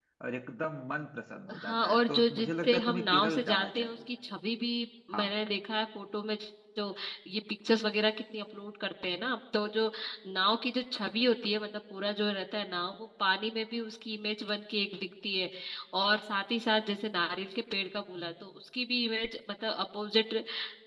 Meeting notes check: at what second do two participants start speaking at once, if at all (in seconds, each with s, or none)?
1.5 s